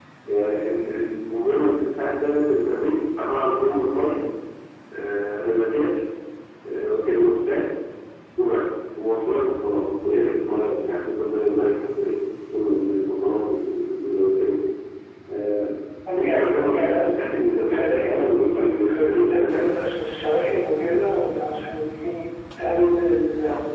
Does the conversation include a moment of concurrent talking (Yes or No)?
Yes